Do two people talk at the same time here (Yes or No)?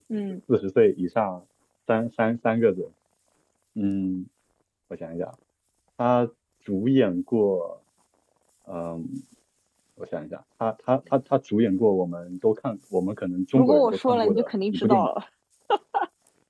Yes